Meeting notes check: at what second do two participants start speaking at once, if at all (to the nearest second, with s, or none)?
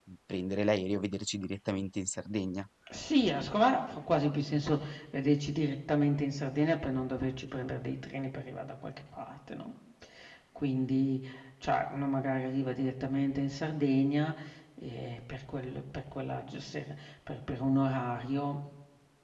none